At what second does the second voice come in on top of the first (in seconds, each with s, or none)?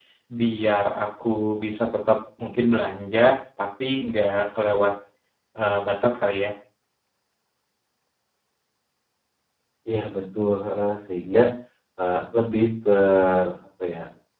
none